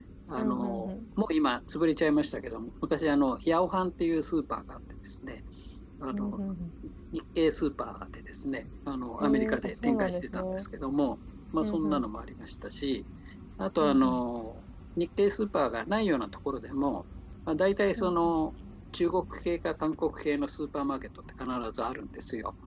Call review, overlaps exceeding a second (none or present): present